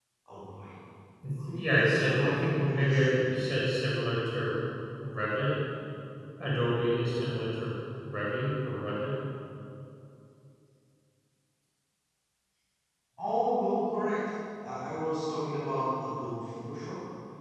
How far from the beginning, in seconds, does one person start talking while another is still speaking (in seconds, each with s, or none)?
1.5 s